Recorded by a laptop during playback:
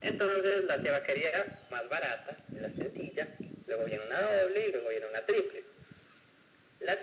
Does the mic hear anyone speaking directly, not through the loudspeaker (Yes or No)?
No